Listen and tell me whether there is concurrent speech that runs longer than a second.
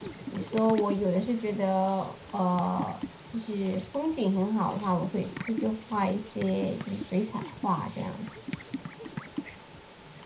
No

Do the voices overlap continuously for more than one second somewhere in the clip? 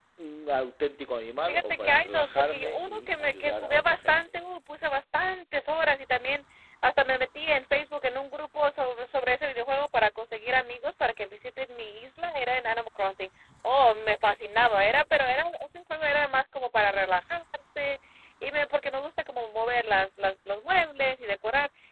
Yes, from 1.5 s

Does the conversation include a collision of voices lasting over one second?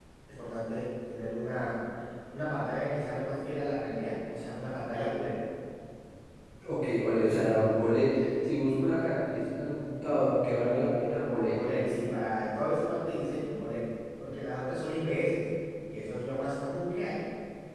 No

